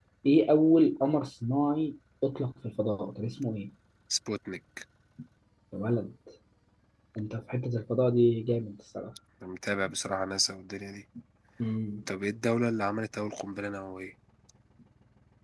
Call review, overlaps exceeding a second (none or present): none